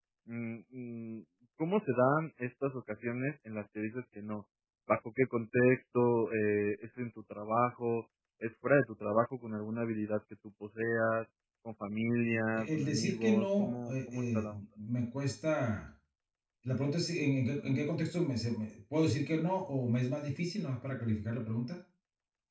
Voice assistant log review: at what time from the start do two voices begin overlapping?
12.6 s

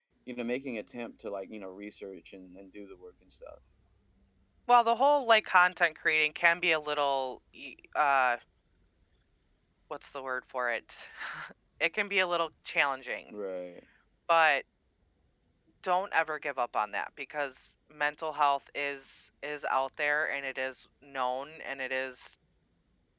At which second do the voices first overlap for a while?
none

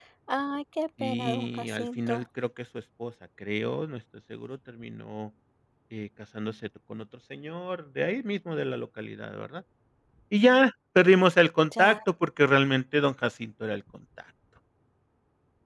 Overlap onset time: 1.0 s

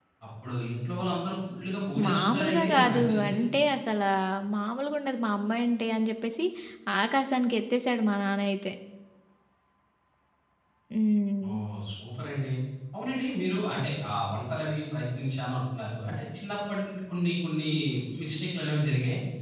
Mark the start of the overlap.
2.0 s

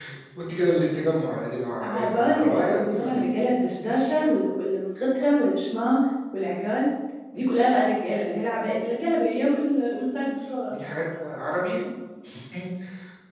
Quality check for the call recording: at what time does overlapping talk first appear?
1.8 s

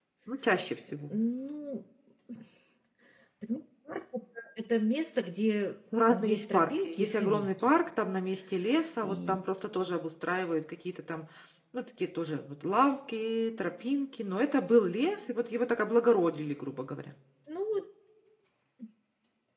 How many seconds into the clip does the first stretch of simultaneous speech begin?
6.2 s

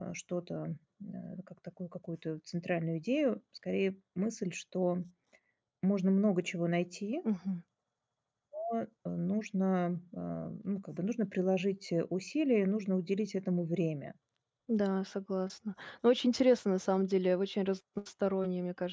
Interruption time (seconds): none

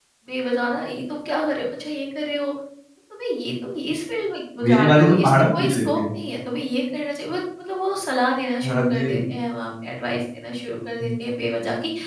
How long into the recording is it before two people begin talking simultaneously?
4.6 s

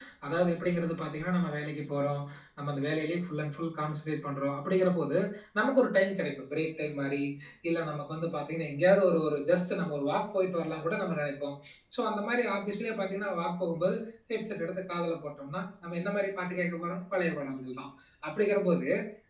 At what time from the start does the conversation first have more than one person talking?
none

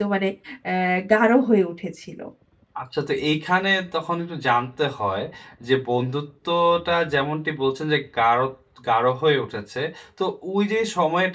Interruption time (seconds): none

